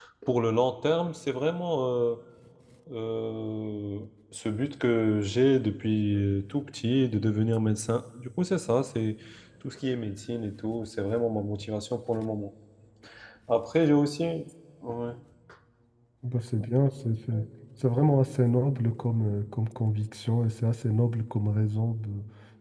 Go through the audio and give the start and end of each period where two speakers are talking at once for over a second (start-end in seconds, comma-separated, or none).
none